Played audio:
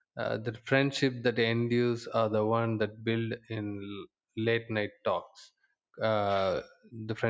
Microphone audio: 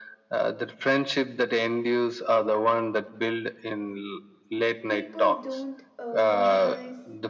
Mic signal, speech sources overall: both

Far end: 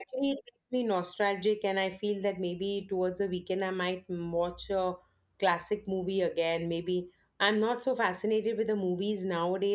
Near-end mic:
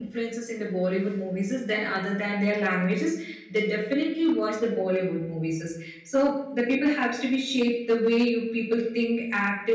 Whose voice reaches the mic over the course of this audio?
user only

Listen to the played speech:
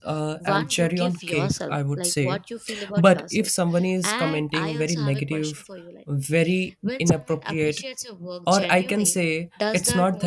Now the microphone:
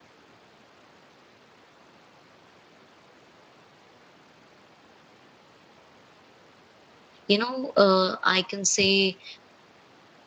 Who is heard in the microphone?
user only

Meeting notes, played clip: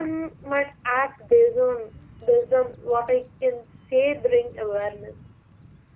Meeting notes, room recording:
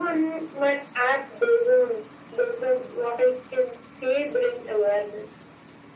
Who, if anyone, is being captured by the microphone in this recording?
echo only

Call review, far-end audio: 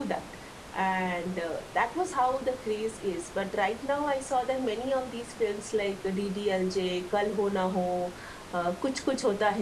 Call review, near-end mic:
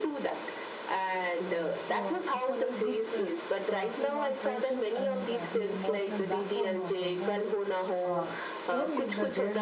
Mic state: both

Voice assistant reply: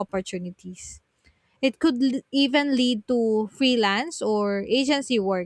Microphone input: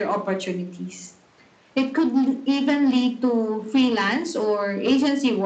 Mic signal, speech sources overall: echo only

